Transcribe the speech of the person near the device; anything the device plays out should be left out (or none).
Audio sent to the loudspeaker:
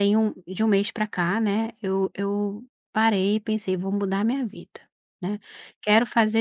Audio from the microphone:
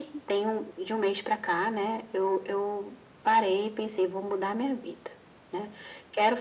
none